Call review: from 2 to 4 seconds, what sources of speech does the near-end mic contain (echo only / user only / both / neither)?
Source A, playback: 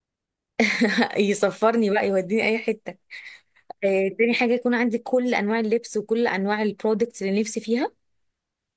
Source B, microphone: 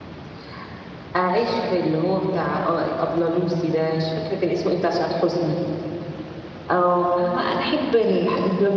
user only